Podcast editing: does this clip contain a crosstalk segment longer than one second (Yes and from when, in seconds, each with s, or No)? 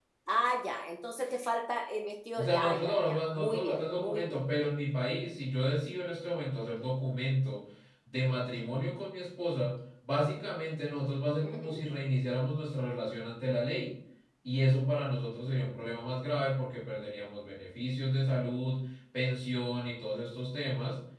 Yes, from 2.4 s